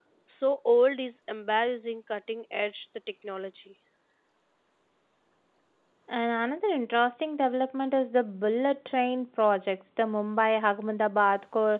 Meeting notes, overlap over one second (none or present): none